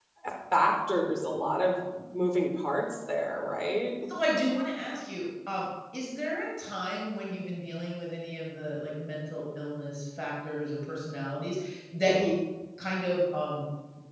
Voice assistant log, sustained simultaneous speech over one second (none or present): none